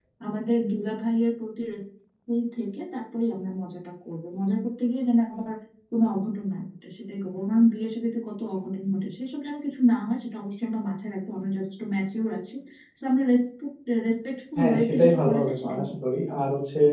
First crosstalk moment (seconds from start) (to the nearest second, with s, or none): 15 s